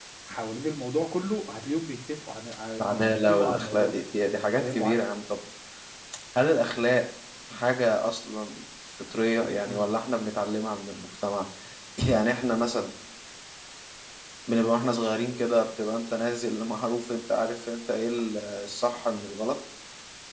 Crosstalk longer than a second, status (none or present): present